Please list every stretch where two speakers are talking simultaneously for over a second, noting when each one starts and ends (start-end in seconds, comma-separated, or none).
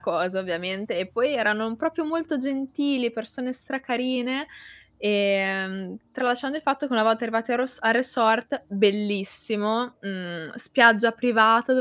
none